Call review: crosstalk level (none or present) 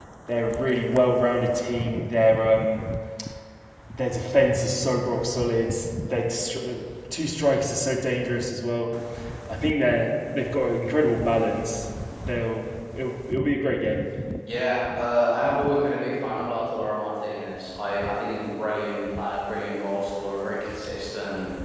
none